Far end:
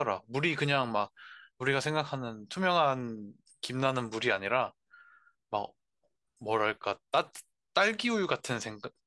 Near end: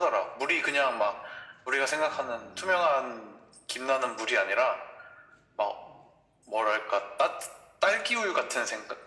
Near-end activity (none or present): none